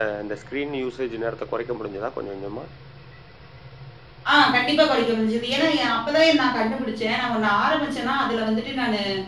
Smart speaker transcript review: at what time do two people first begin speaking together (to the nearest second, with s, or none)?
none